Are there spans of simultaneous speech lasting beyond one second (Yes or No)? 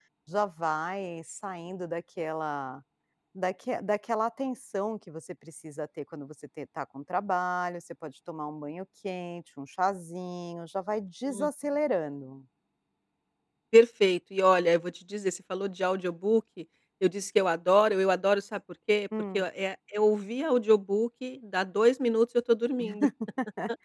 No